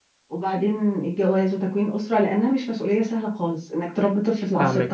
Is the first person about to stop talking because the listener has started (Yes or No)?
Yes